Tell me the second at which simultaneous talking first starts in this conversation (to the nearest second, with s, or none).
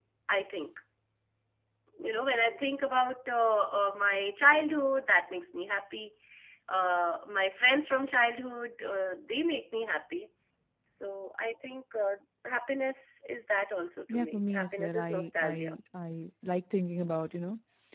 14 s